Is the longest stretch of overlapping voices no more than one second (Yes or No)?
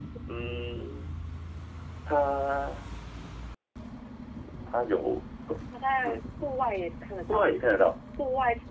Yes